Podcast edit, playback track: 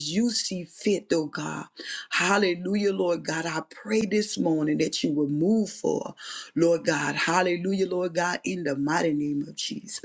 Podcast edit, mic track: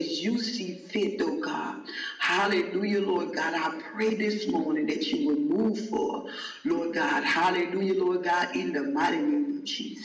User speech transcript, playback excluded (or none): none